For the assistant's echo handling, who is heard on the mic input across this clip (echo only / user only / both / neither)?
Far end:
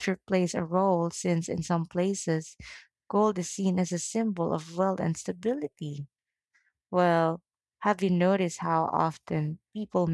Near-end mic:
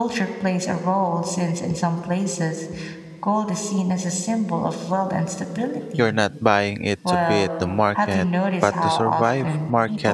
both